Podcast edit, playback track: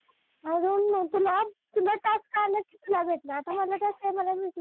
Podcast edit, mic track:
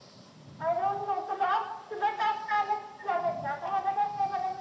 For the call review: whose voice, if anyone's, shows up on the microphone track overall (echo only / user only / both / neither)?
echo only